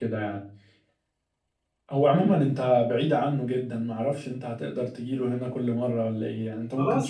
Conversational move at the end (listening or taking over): taking over